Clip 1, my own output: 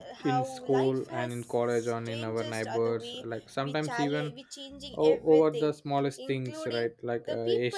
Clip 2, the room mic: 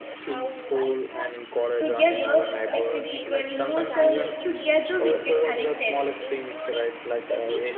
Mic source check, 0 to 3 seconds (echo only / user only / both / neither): both